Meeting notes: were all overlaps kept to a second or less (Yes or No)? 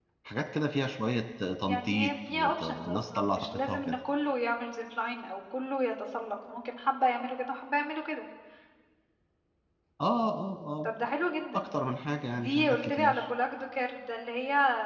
No